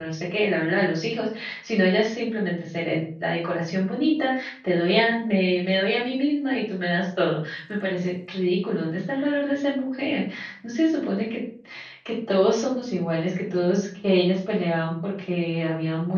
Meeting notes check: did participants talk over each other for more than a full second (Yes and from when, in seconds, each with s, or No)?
No